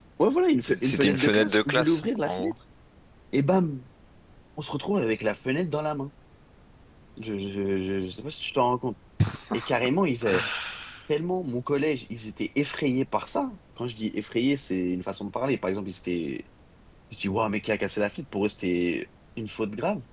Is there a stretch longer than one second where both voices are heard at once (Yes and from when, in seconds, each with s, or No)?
Yes, from 0.7 s